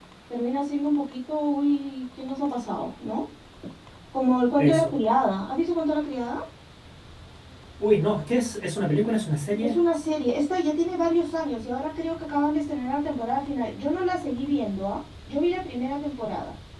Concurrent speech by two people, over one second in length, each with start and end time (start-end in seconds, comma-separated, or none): none